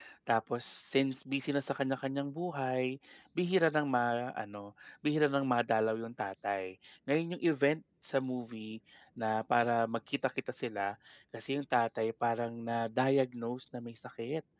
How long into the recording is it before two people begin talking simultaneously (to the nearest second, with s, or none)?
none